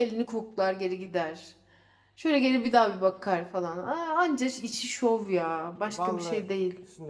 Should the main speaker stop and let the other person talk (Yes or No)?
Yes